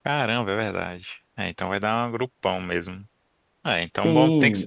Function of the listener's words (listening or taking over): taking over